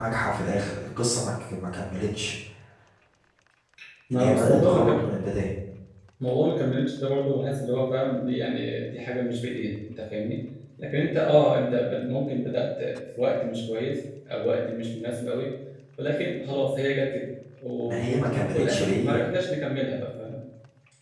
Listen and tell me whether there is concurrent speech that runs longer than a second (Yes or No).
Yes